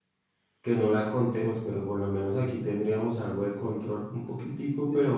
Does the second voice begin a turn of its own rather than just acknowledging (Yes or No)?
Yes